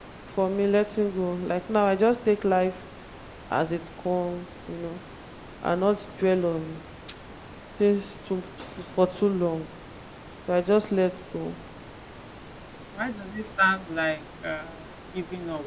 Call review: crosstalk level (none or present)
none